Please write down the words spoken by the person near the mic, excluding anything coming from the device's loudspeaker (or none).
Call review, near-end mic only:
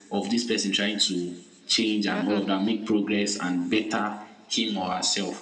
uh, uh